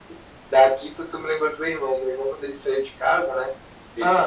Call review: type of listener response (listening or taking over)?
listening